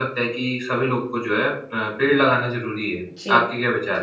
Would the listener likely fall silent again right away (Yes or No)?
No